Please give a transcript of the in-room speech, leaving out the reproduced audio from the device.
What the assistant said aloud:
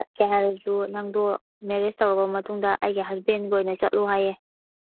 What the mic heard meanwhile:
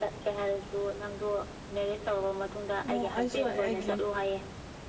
ꯑꯣ ꯑꯩꯁꯨ ꯑꯩꯒꯤ

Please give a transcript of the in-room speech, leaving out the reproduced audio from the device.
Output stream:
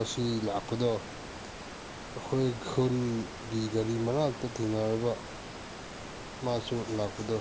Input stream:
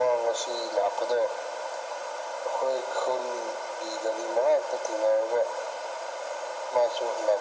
none

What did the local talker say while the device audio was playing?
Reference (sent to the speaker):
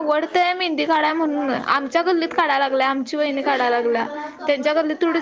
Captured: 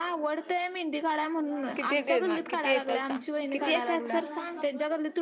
किती देणार किती येतात सांग किती येतात सर सांग

